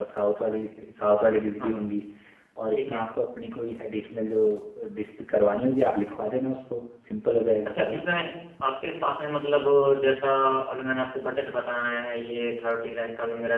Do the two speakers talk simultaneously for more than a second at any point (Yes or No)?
No